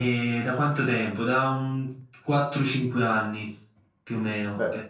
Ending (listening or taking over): listening